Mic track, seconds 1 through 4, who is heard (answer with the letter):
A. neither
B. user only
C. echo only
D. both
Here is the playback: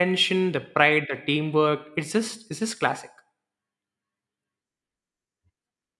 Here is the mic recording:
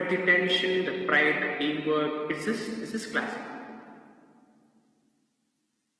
C